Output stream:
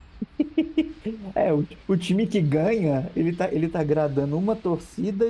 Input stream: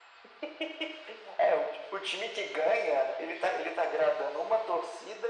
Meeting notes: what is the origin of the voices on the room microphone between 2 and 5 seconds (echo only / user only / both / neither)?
echo only